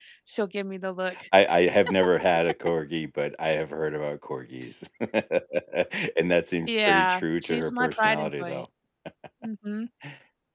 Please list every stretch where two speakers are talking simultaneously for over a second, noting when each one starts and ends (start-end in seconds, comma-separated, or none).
6.7-8.6